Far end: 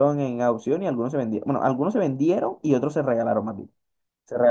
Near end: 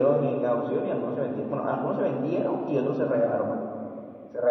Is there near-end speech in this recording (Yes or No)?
No